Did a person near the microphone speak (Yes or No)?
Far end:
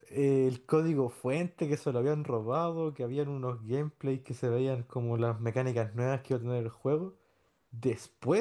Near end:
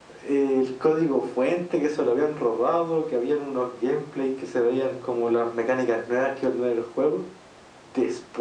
No